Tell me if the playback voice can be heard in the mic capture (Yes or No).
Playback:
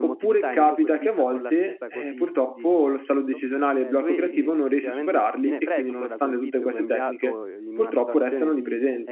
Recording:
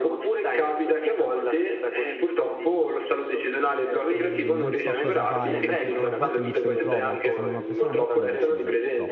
Yes